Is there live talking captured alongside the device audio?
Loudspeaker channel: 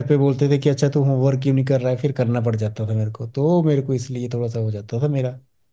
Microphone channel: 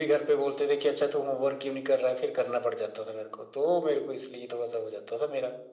No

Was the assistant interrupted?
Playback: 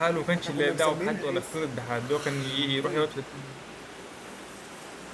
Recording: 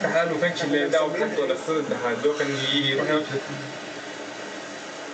No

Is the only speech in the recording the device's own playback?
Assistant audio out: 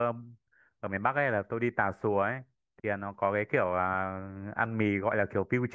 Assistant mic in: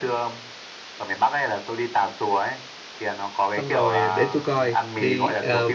No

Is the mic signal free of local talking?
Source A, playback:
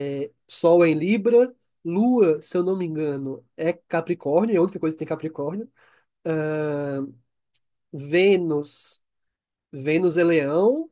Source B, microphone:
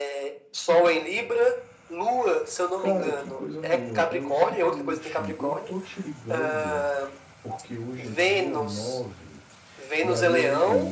No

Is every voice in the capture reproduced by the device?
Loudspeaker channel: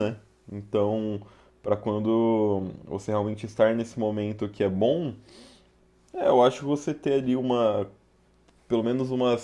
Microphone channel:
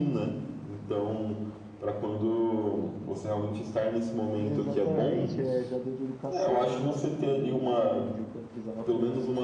No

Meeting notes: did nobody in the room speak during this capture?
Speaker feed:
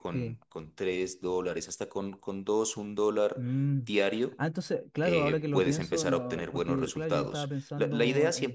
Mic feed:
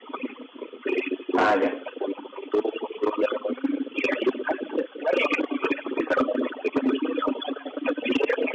No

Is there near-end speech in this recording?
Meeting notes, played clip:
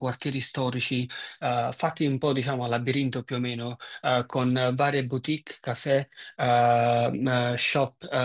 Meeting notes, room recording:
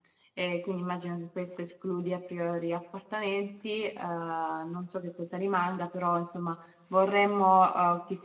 Yes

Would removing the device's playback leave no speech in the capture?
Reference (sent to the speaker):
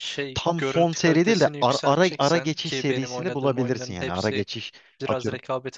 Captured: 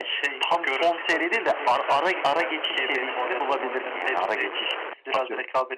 Yes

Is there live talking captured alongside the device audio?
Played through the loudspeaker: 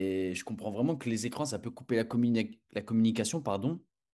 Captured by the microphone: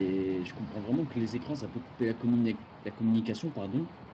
No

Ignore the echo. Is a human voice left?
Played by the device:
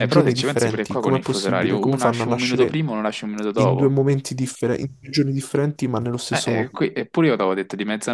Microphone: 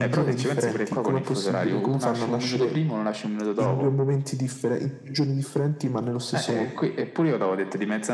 No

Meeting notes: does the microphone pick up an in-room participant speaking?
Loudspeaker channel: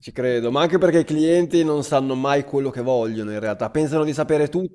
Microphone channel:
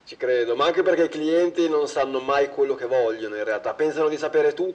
No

